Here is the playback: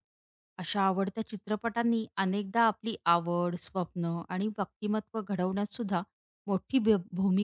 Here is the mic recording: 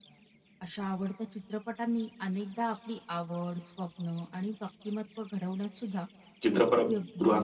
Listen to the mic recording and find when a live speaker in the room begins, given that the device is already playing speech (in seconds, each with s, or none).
6.4 s